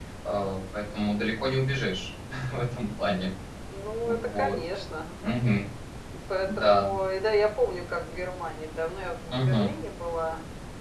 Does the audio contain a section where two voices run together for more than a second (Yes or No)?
No